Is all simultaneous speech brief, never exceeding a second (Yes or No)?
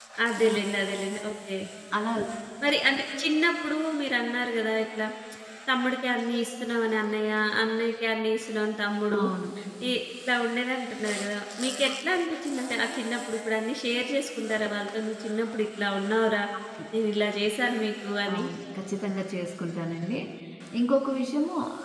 Yes